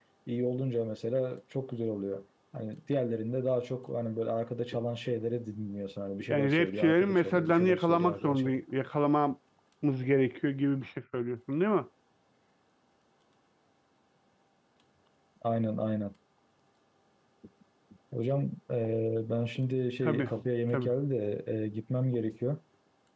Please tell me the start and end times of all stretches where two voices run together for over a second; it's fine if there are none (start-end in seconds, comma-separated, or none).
6.3-8.6